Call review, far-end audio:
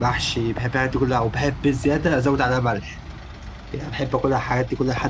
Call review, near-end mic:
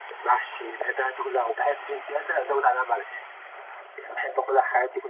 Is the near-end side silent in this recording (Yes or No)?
Yes